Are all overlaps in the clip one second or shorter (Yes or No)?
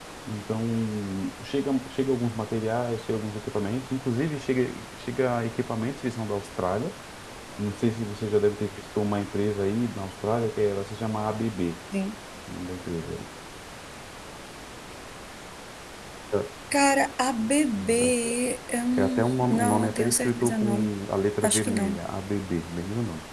No